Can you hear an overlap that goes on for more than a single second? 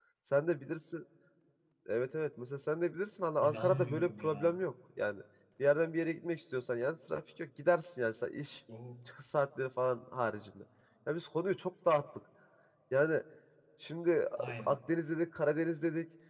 Yes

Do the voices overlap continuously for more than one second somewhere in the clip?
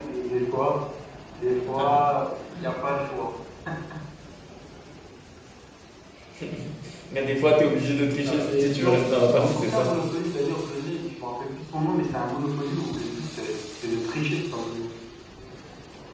Yes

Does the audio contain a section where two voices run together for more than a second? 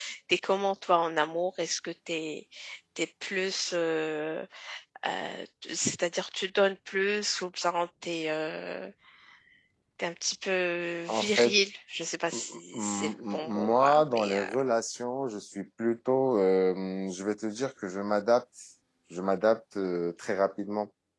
Yes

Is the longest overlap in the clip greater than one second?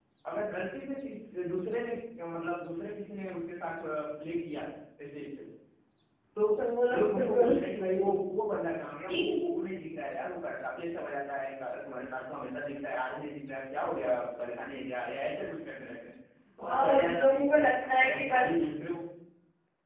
Yes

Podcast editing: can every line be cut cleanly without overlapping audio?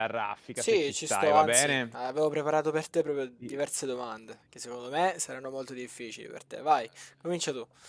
No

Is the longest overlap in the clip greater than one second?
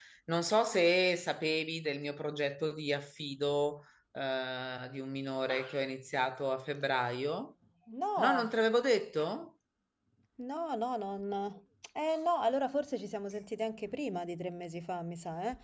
No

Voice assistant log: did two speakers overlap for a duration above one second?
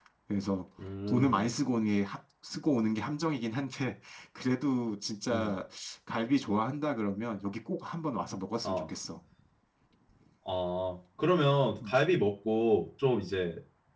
No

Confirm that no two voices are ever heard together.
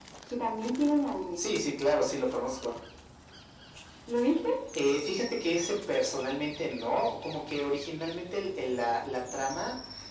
Yes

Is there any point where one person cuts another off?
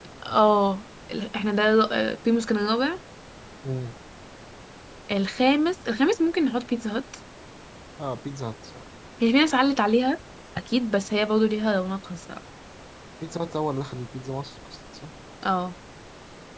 No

